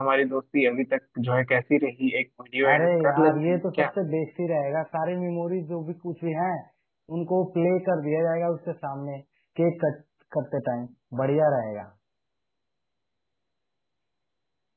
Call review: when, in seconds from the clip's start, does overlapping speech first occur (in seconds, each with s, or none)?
2.6 s